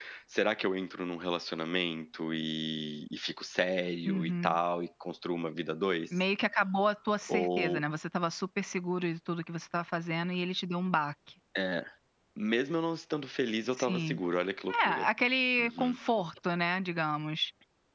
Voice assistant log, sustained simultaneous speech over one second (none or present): none